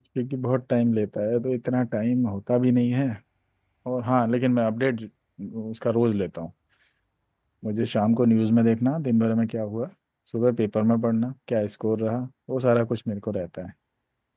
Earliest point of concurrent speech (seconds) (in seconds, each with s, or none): none